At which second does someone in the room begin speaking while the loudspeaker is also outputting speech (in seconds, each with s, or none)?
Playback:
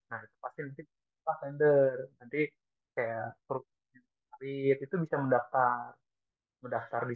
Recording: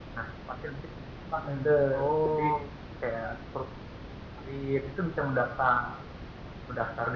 1.3 s